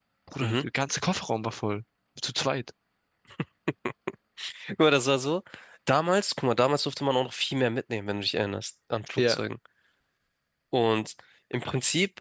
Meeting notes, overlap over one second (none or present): none